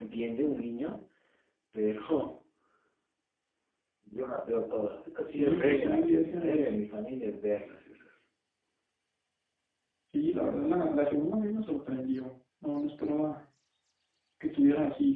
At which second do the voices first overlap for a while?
5 s

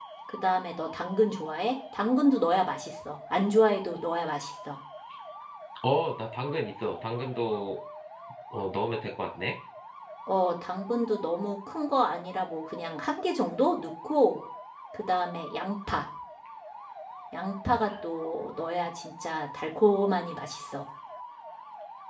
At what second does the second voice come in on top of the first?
none

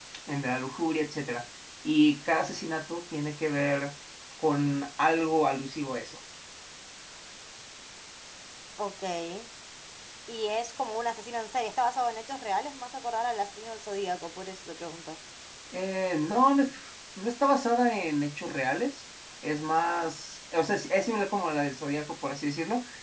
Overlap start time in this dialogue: none

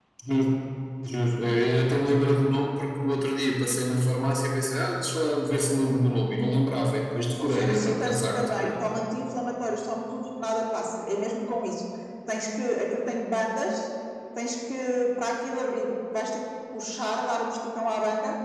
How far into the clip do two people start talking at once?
7 s

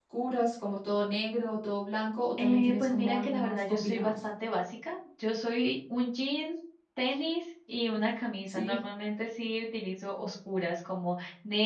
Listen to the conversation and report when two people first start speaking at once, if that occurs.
2 s

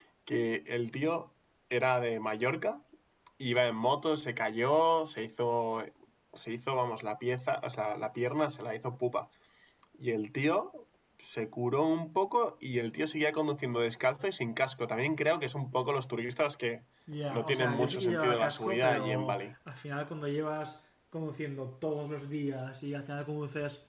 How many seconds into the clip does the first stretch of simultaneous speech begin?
17 s

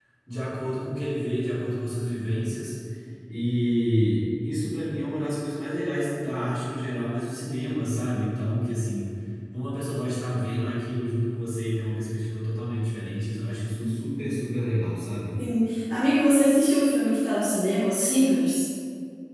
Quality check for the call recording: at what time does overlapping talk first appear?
none

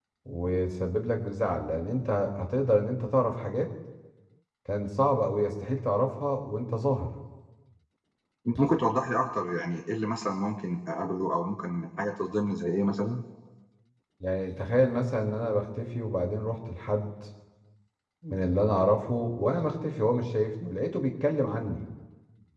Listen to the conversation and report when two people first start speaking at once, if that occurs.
none

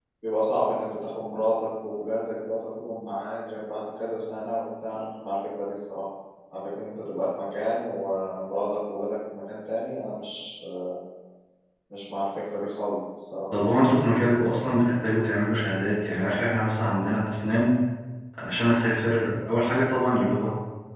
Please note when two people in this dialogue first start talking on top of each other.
none

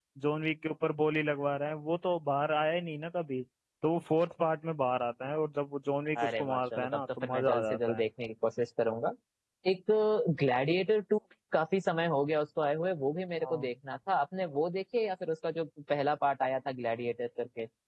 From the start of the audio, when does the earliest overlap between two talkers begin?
6 s

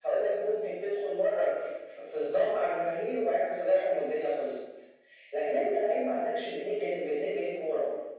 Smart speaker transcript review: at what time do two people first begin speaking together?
none

